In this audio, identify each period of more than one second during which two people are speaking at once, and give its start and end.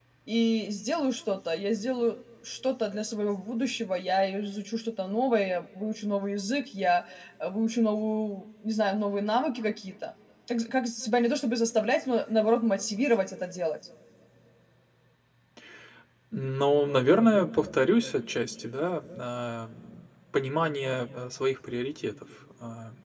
none

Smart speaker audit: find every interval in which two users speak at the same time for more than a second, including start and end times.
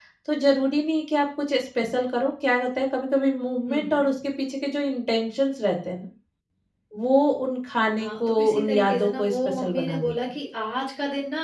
8.0-10.1

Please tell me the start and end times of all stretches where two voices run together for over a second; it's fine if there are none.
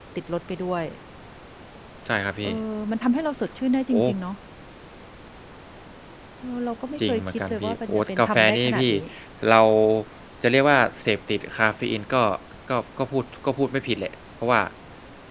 7.1-8.9

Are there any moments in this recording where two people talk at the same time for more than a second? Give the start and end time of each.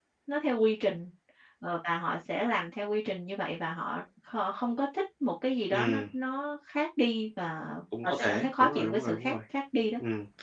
8.0-9.3

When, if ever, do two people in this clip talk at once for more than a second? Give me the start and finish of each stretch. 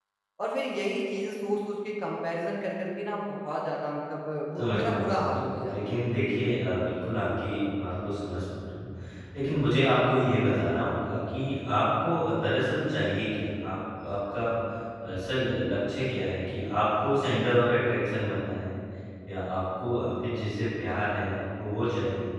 4.6-5.8

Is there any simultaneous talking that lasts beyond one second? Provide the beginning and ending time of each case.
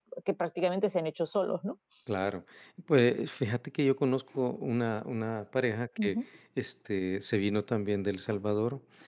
none

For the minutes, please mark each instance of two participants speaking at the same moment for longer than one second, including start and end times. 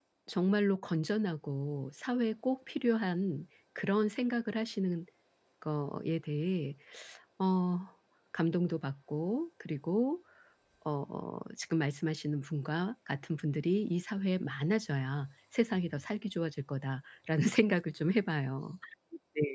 none

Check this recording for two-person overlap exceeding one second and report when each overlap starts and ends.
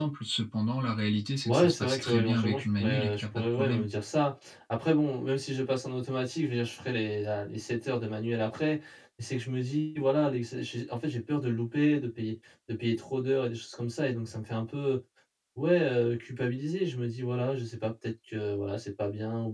1.4-3.9

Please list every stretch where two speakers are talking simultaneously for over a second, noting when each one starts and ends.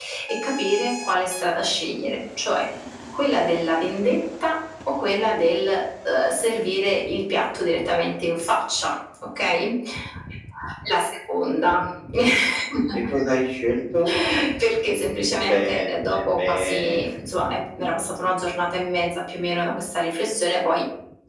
15.4-17.0

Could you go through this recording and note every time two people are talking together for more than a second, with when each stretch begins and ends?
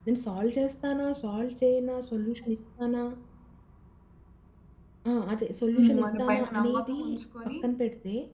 5.8-7.0

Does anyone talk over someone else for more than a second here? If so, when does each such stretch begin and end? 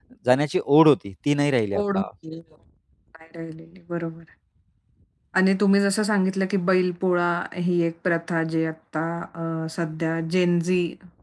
none

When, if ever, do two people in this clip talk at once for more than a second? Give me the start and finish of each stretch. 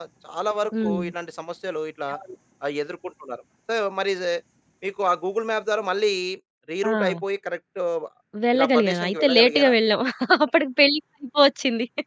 8.5-9.7

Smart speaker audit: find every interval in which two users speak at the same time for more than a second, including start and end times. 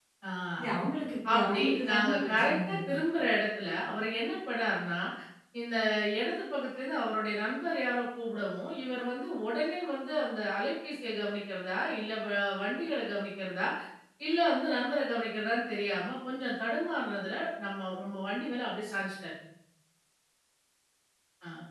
1.3-2.8

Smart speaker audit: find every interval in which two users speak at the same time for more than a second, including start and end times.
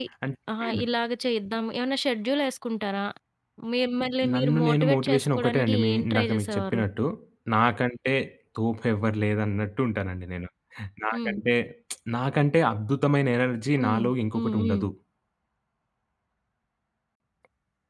4.3-6.8

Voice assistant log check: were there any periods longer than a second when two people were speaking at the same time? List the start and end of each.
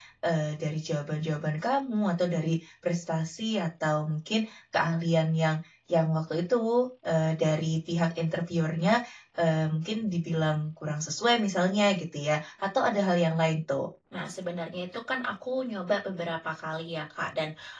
none

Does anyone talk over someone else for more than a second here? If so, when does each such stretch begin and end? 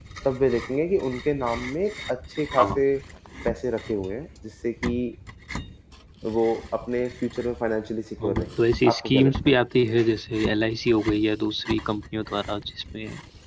8.2-9.6

